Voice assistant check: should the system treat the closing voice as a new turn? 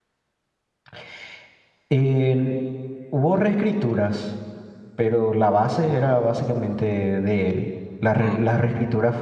No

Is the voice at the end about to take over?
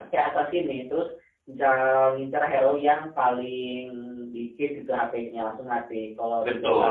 Yes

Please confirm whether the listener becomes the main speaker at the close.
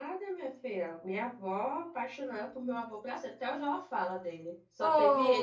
Yes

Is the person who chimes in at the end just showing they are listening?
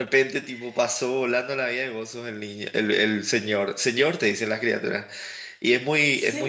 Yes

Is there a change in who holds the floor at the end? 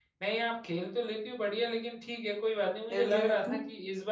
No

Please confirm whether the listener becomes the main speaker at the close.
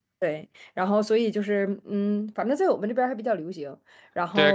Yes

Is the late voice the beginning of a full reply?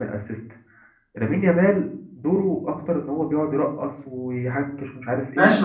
Yes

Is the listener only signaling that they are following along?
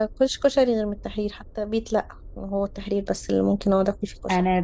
No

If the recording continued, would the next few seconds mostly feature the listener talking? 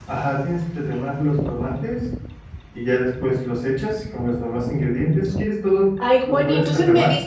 Yes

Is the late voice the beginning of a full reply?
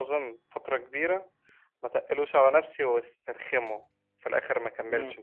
Yes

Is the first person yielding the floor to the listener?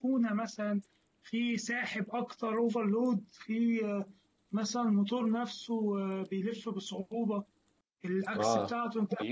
Yes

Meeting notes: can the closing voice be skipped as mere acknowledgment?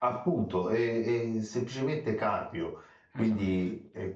Yes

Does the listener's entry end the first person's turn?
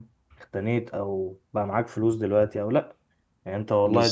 No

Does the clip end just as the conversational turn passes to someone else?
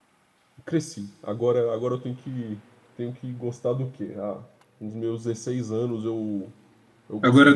No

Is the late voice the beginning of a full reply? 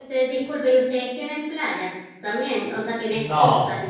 Yes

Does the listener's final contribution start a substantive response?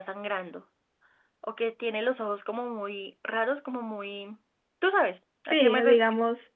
Yes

